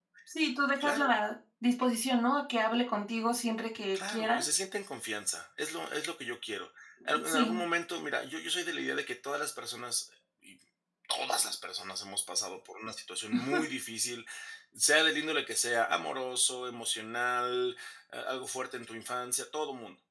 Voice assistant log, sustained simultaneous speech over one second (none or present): none